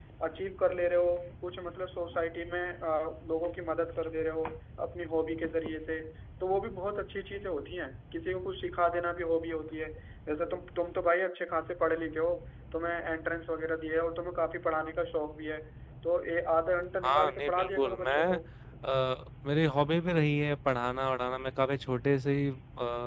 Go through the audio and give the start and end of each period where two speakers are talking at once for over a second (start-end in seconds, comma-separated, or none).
17.0-18.4